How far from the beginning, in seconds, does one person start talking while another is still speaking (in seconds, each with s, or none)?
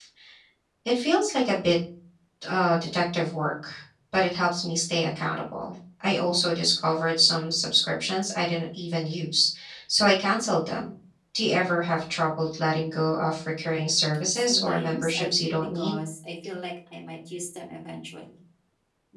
14.3 s